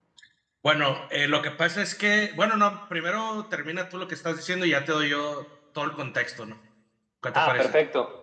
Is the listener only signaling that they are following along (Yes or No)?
No